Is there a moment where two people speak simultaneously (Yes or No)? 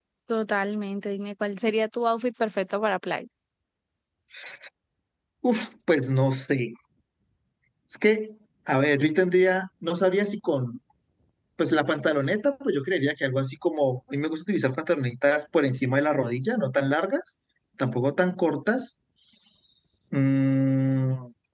No